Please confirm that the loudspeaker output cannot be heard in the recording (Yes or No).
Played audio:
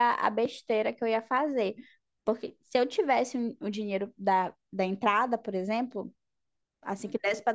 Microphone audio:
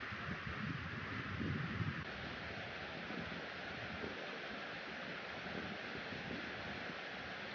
Yes